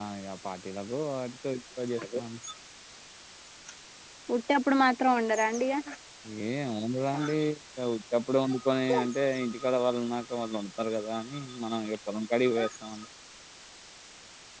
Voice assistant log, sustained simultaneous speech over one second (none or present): none